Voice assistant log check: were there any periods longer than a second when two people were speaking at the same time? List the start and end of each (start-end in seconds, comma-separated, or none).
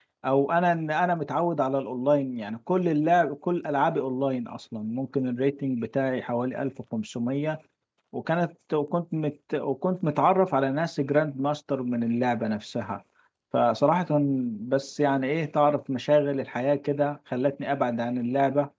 none